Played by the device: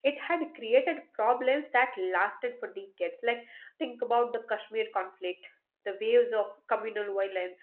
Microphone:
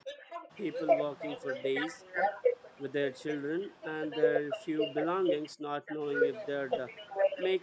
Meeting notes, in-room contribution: present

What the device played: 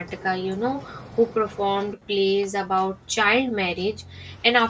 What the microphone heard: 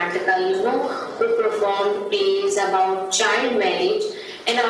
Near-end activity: none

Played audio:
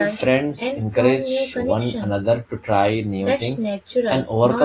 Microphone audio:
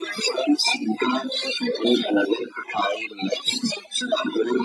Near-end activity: none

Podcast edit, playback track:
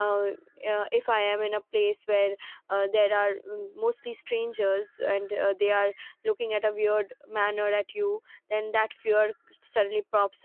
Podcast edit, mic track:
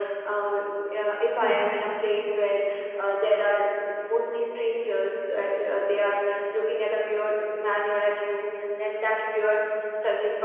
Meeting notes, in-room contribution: present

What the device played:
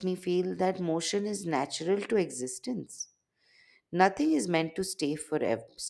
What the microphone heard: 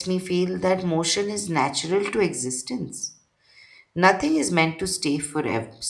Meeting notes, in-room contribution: none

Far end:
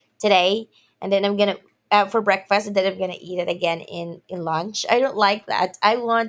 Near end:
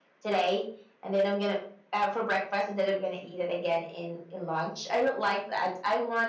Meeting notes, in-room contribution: none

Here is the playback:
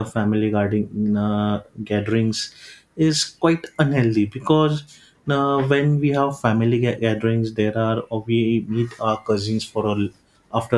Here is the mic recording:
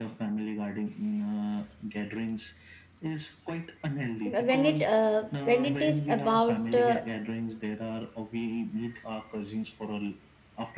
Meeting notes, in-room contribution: present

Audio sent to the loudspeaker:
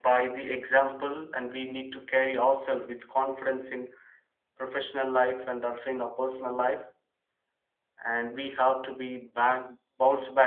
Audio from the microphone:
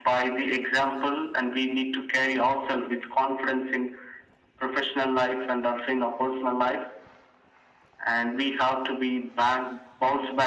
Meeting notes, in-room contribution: none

